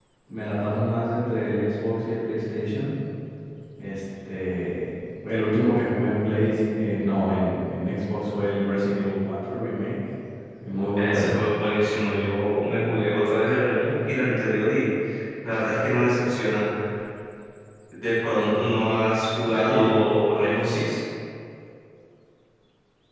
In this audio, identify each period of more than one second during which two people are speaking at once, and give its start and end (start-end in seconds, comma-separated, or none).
none